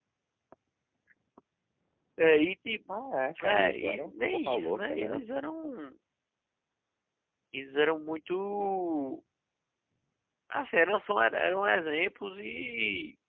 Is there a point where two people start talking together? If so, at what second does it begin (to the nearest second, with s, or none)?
3 s